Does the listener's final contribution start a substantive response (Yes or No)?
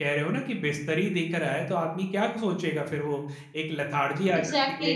Yes